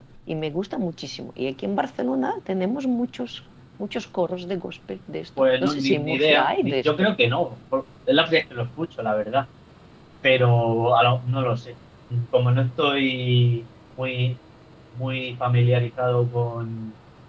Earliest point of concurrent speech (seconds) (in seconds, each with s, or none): 5.6 s